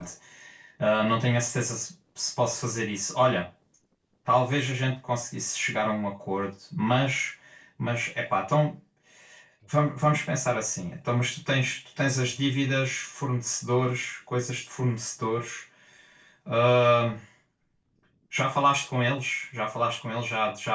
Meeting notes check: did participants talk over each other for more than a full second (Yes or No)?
No